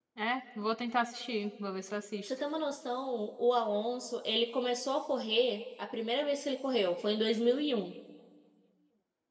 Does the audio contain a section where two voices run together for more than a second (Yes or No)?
No